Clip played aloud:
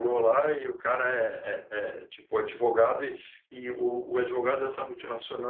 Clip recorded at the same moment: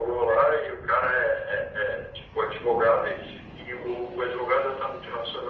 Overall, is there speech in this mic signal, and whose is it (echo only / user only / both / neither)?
echo only